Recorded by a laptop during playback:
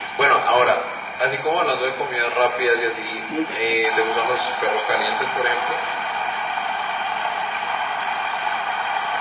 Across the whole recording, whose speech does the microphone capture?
both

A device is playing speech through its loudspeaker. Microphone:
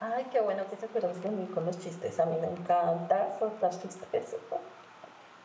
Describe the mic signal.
user only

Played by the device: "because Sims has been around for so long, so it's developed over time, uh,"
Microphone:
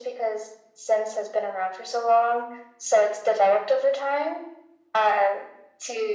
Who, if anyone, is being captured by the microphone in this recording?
echo only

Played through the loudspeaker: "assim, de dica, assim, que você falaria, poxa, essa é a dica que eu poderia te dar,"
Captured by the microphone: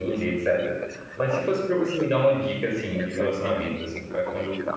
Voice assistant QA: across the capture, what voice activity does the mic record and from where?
both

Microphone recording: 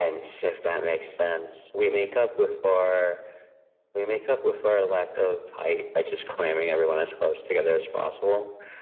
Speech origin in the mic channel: echo only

